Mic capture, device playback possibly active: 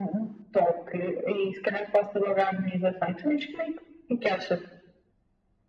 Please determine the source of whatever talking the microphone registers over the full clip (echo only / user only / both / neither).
echo only